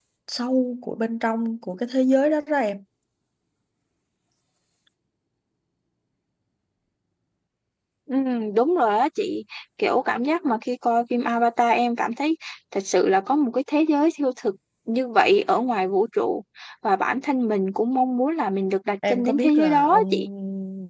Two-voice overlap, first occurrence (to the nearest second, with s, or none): 19 s